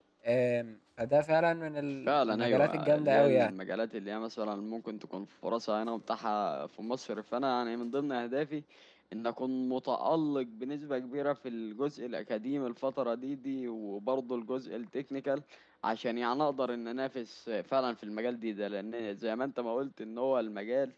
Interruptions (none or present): present